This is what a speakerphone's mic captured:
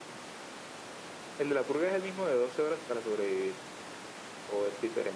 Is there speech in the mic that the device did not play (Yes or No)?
No